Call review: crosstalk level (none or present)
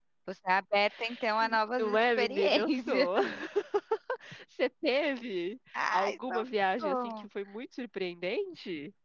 present